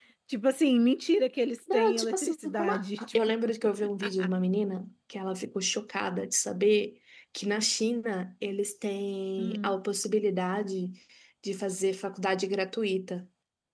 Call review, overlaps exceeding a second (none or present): present